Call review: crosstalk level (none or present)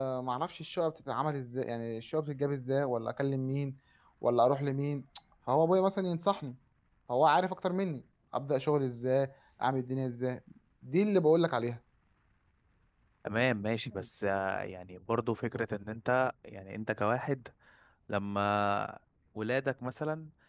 none